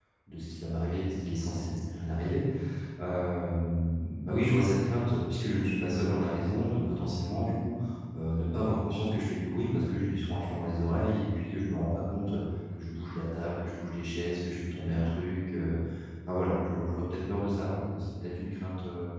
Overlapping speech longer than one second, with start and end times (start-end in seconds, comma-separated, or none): none